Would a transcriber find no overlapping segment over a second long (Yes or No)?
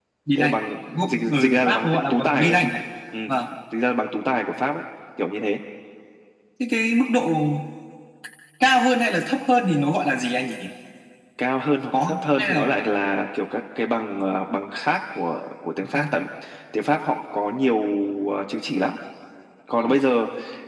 No